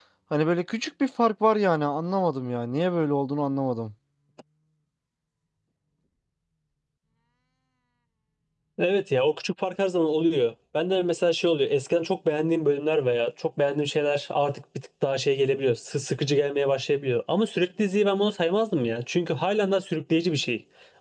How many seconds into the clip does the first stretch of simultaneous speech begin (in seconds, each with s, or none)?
none